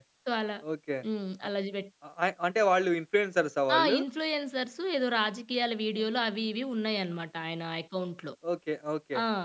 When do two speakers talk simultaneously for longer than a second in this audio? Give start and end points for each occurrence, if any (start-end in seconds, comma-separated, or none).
none